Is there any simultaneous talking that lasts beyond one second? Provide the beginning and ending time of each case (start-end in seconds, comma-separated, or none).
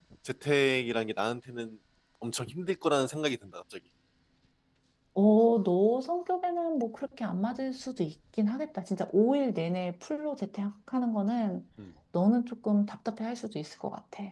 none